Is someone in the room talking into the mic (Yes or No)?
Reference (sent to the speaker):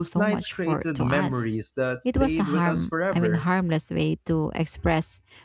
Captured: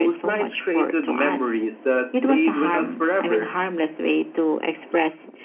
No